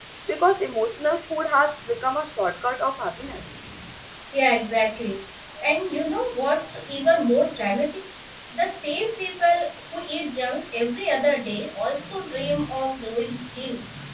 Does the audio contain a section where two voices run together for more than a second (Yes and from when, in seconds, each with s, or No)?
No